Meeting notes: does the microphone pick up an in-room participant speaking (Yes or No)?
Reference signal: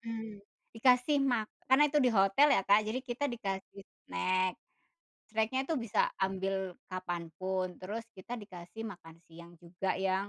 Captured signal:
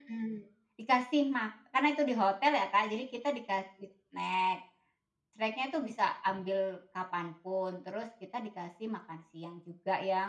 No